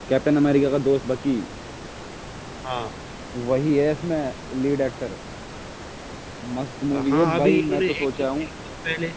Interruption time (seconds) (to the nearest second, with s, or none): 7 s